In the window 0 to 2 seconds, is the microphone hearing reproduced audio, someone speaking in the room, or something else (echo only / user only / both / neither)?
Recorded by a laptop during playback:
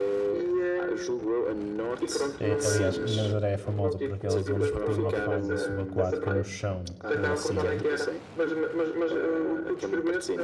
echo only